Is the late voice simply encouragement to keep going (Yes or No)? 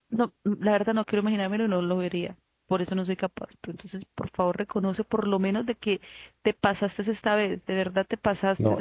No